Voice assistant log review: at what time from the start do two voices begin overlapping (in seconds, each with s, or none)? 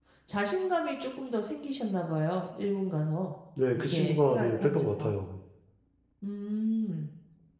3.7 s